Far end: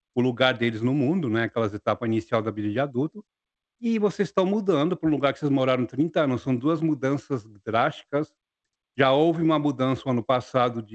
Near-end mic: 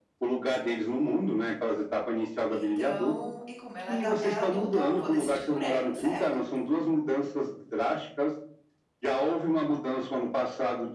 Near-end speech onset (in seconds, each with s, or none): 2.5 s